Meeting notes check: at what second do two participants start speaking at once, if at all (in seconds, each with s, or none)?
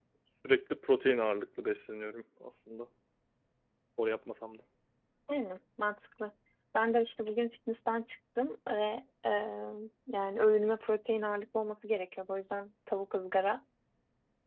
none